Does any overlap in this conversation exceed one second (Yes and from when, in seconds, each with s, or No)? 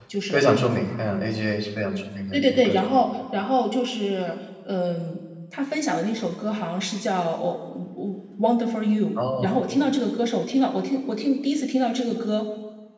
No